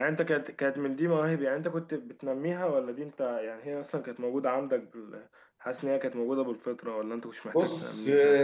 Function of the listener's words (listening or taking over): taking over